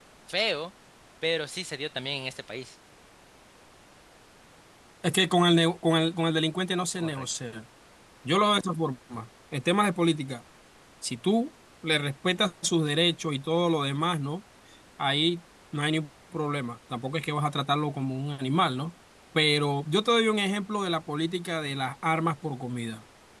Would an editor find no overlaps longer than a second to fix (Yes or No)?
Yes